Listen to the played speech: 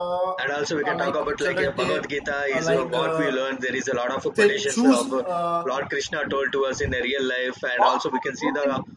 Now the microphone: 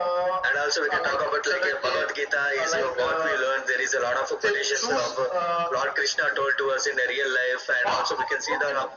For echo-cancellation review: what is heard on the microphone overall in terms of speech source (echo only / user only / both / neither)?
echo only